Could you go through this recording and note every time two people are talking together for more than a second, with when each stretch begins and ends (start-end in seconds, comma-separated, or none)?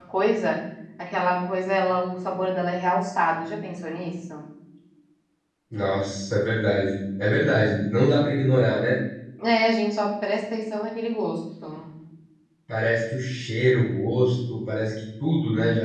none